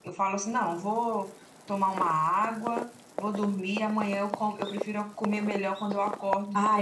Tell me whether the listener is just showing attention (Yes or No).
No